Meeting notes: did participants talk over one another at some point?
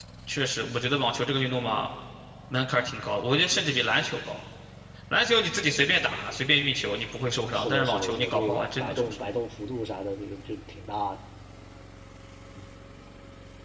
Yes, from 7.5 s

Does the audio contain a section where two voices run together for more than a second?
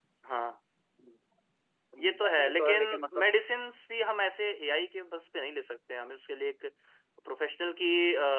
Yes, from 2.0 s

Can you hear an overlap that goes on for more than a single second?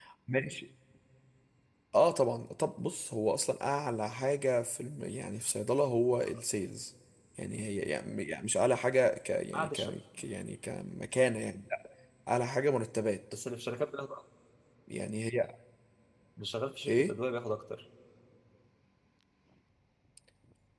No

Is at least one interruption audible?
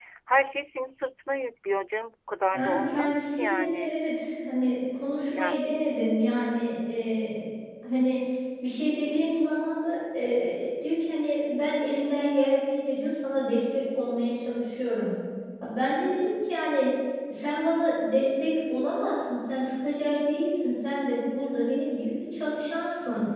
Yes, from 2.5 s

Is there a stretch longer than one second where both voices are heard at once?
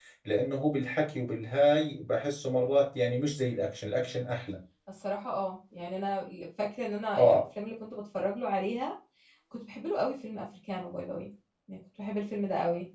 No

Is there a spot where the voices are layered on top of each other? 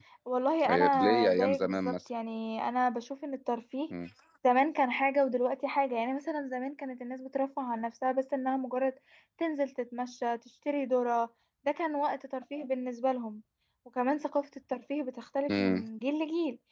Yes, from 0.7 s

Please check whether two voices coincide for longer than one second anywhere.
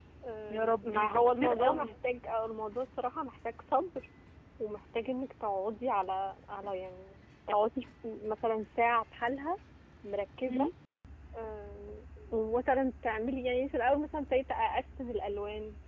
Yes, from 0.5 s

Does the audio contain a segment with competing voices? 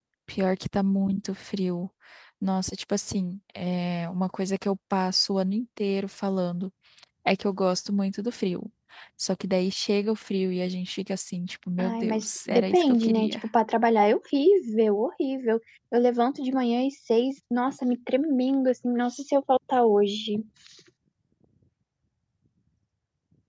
Yes, from 11.8 s

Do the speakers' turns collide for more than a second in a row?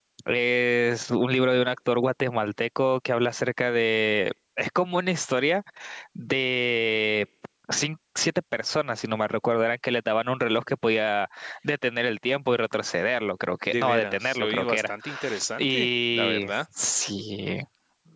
Yes, from 13.7 s

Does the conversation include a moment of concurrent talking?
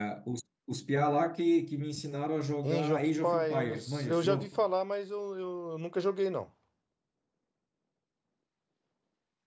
Yes, from 2.6 s

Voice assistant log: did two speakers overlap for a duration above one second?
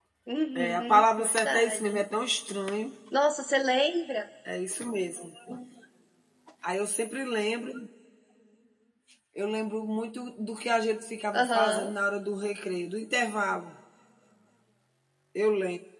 Yes, from 0.6 s

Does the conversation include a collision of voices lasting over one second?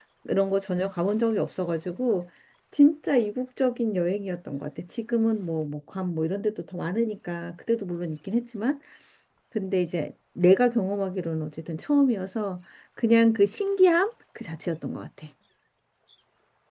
No

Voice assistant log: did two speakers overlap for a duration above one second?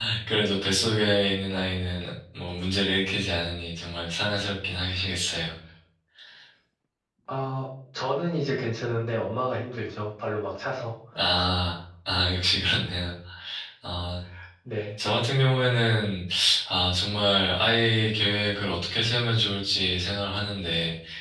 No

